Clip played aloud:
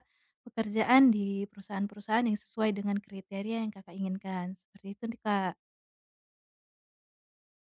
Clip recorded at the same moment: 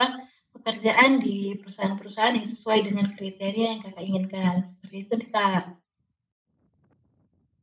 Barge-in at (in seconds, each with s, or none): none